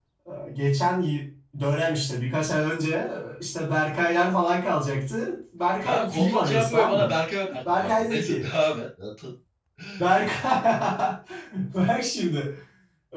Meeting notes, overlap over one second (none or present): present